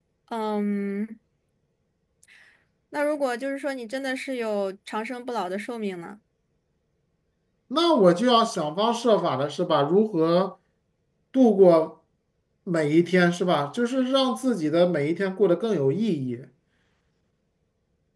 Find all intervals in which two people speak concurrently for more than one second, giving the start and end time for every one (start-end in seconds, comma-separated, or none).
none